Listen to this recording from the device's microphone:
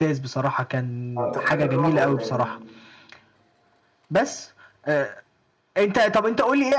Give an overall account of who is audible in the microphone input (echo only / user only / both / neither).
both